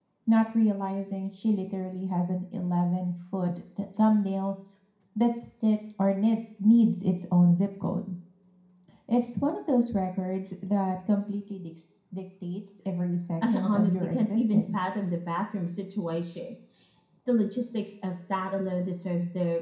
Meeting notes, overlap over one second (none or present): present